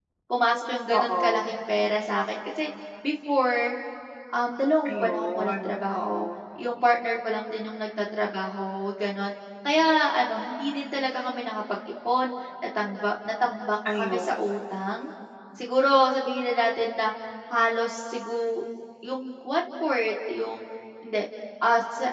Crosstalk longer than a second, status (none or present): present